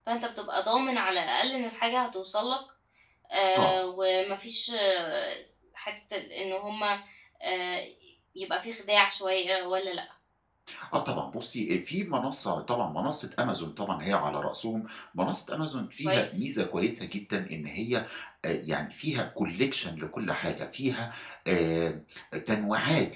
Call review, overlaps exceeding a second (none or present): none